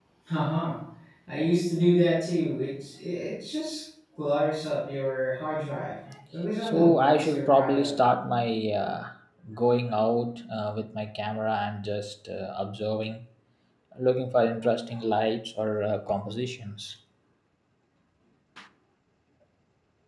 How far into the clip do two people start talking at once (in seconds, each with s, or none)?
6.6 s